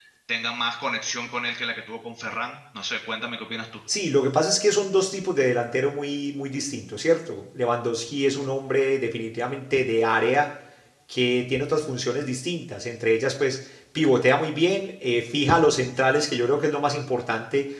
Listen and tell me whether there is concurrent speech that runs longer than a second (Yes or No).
No